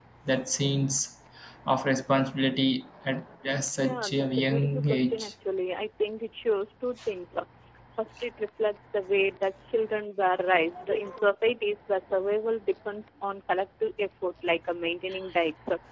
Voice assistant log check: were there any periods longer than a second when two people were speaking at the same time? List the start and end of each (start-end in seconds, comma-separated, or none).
3.8-5.3